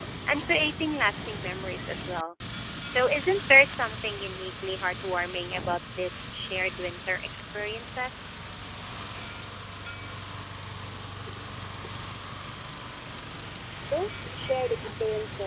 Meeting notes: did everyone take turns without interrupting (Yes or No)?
Yes